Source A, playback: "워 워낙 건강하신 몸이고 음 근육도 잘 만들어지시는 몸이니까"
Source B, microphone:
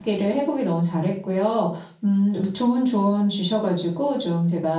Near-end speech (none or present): present